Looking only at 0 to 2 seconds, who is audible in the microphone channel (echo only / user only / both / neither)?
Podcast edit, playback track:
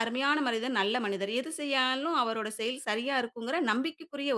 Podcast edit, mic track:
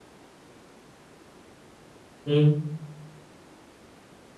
neither